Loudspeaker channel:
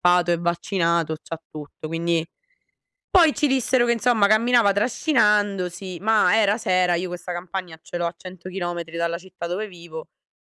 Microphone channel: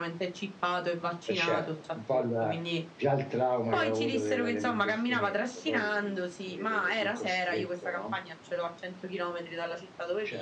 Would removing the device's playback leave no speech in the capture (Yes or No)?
No